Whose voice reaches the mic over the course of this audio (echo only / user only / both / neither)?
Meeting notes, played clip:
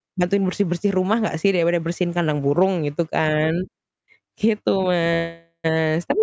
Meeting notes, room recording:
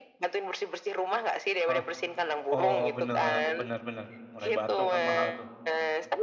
both